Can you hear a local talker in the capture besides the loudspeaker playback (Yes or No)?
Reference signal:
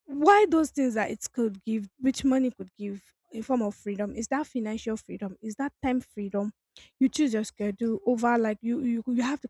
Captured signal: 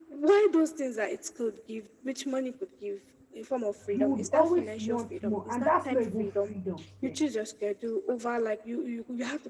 Yes